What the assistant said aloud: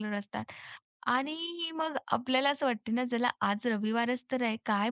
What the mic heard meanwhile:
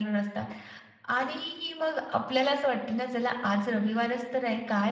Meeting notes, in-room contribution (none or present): none